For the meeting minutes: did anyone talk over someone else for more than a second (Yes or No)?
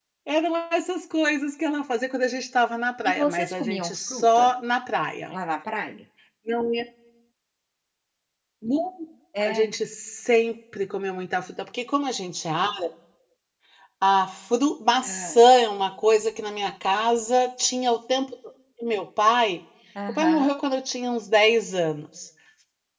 Yes